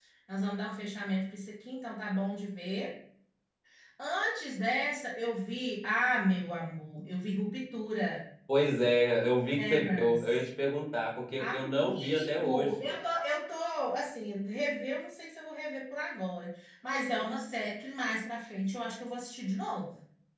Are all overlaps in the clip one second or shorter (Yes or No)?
No